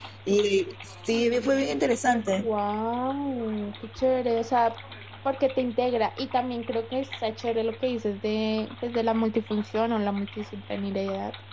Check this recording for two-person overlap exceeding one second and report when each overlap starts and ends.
none

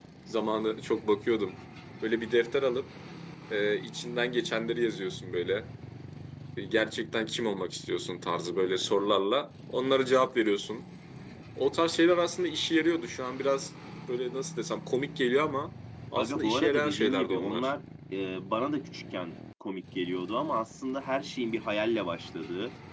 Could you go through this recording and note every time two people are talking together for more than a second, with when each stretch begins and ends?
16.2-17.7

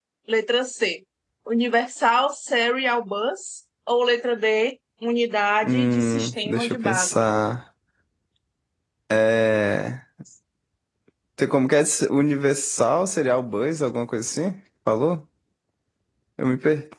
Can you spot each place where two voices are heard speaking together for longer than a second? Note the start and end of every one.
5.6-7.1

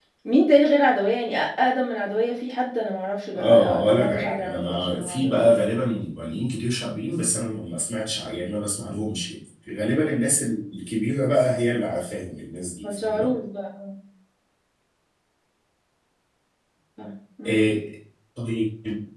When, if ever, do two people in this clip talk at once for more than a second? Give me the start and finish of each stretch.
3.3-5.5

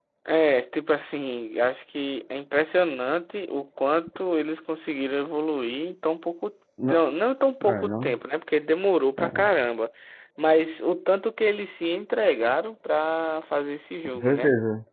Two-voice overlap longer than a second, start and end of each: none

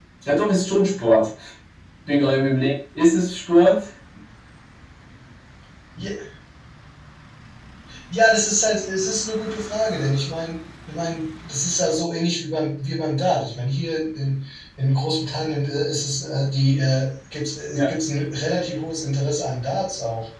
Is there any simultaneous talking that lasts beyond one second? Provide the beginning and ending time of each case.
none

